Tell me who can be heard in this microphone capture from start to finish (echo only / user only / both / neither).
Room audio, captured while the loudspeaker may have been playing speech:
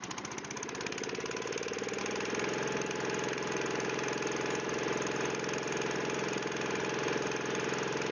neither